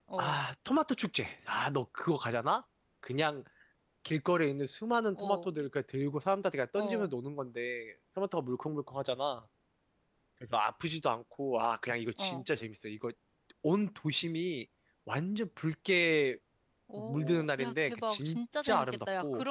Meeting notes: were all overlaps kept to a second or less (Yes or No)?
No